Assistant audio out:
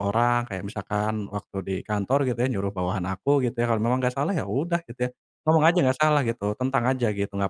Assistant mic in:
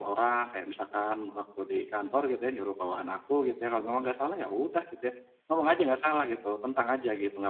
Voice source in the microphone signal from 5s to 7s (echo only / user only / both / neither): echo only